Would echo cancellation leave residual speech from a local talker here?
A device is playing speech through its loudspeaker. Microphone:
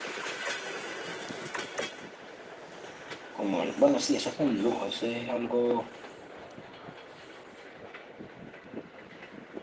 Yes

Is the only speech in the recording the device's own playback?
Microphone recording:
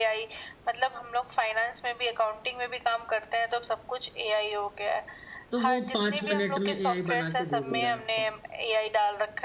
No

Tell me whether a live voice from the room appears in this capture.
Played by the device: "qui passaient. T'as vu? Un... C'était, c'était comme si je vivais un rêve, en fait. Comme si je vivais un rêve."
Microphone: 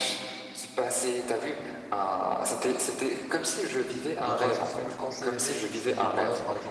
Yes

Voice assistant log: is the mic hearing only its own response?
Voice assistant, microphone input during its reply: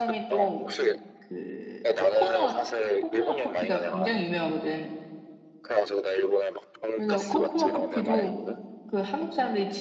No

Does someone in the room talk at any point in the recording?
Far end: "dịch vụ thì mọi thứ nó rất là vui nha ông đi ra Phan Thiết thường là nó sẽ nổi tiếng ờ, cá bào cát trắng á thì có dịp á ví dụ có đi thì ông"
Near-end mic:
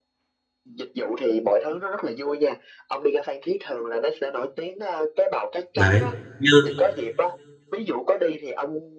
Yes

